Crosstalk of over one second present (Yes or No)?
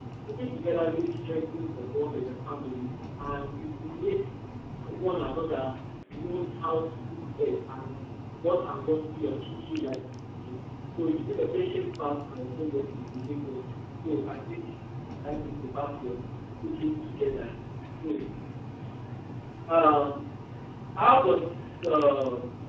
No